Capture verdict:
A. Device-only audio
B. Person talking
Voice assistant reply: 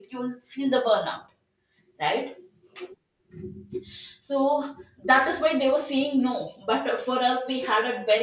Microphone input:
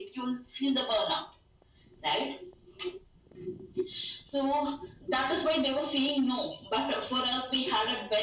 A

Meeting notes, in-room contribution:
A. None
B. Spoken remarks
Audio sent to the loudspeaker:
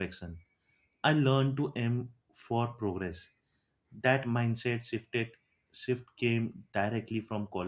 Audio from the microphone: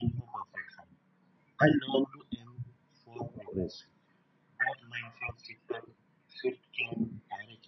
A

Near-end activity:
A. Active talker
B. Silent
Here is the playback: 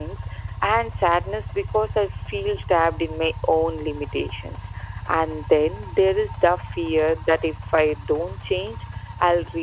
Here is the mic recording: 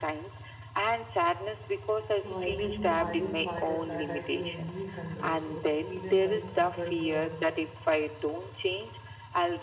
A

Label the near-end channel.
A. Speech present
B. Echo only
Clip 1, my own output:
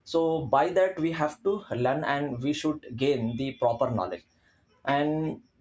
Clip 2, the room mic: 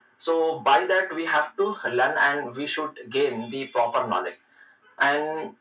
B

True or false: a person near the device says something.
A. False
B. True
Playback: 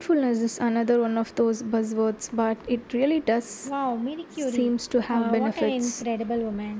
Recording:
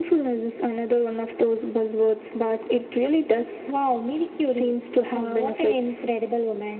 A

